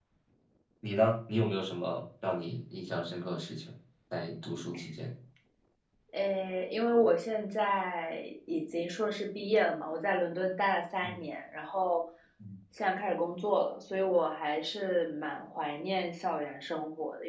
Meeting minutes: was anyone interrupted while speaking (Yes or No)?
No